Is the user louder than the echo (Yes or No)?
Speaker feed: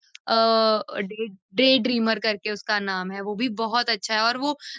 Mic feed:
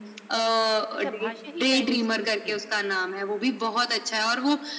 No